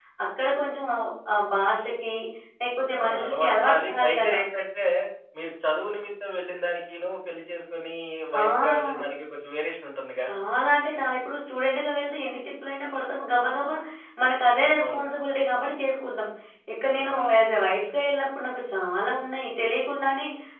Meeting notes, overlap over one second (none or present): present